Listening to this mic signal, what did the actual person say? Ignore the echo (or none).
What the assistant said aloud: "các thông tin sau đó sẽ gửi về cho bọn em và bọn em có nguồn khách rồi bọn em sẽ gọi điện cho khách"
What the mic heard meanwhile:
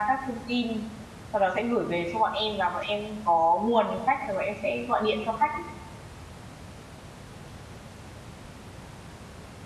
none